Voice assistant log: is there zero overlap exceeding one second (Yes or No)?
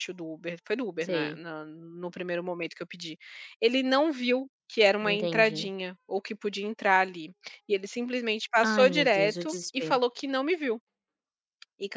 No